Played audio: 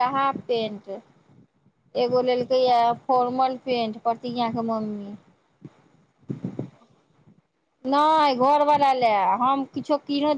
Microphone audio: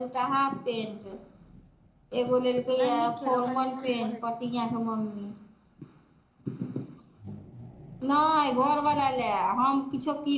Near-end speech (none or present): present